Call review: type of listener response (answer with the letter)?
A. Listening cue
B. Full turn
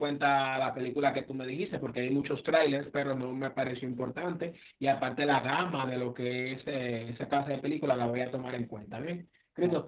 A